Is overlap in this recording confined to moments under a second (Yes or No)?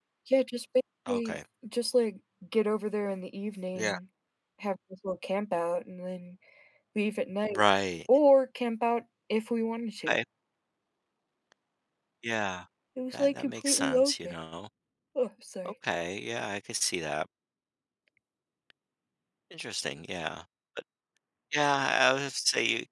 No